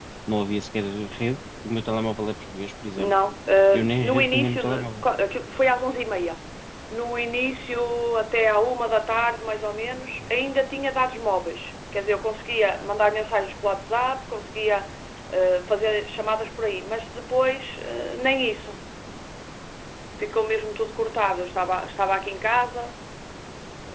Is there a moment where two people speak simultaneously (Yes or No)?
Yes